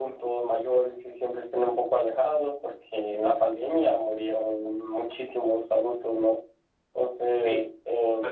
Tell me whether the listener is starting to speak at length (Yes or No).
Yes